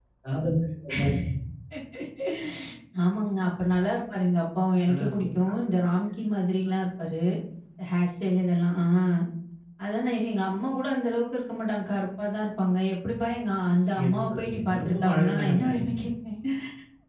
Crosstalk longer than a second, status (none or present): present